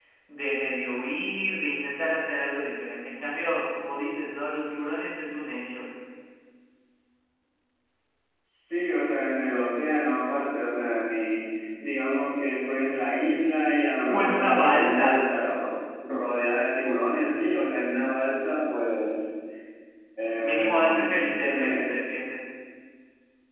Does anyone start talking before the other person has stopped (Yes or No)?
Yes